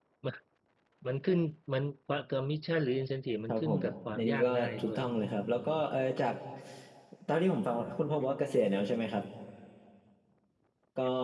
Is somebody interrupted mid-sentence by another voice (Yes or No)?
Yes